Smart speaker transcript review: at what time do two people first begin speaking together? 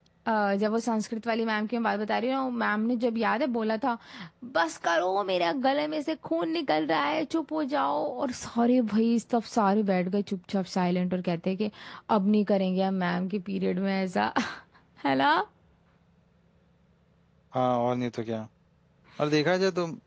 none

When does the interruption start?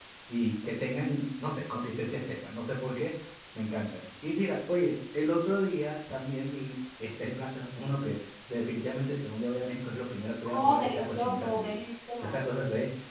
10.4 s

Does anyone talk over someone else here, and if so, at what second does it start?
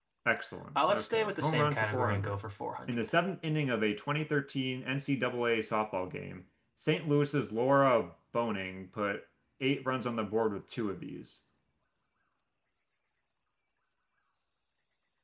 0.9 s

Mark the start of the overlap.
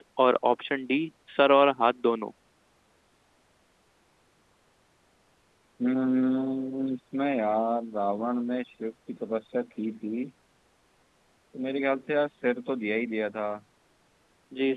none

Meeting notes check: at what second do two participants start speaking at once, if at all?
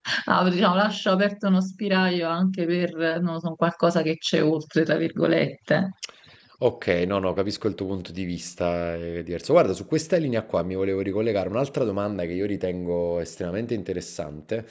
none

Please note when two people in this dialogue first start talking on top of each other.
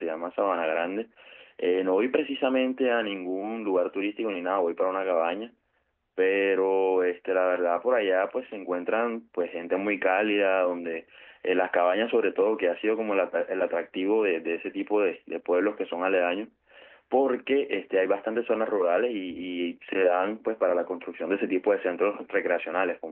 none

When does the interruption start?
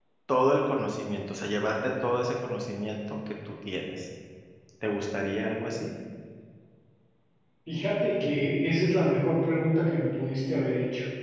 none

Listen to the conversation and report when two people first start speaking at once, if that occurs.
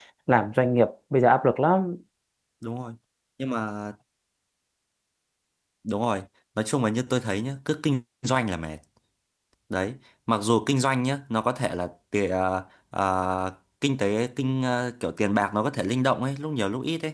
none

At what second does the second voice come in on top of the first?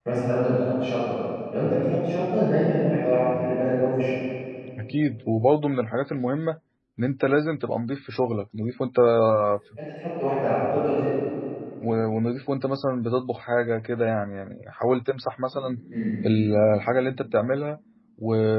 none

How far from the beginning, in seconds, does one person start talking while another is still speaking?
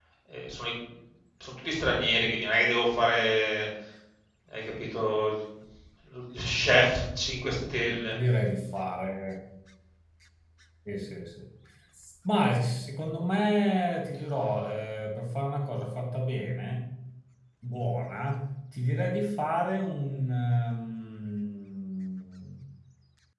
none

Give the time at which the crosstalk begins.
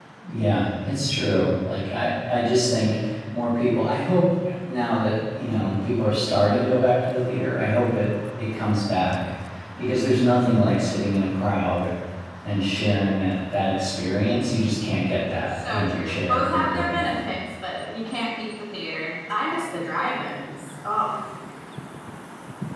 15.5 s

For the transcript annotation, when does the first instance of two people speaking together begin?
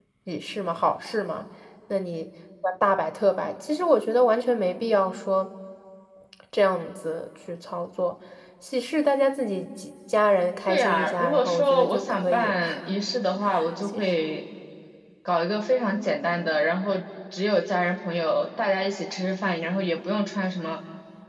10.7 s

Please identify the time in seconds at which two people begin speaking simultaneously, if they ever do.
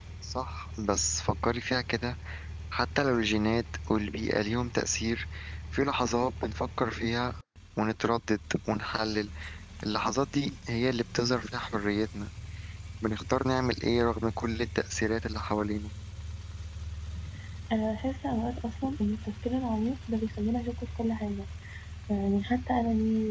none

